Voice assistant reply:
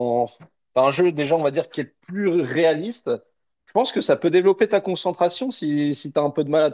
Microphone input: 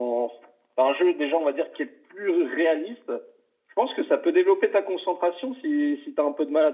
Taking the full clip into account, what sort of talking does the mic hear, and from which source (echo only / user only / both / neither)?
echo only